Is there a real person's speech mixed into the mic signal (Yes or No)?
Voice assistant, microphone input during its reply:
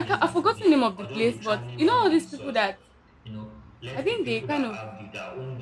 Yes